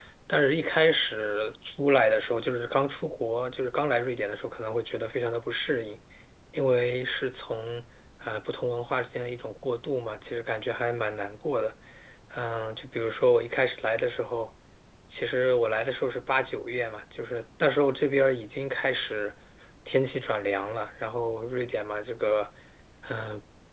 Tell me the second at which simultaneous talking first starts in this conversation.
none

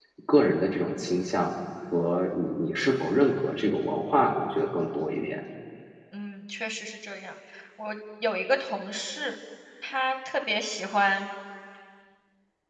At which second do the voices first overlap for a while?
none

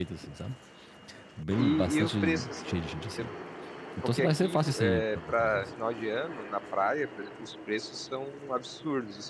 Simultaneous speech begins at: 2 s

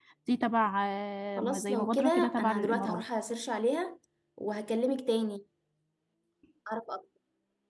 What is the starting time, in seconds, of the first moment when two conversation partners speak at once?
1 s

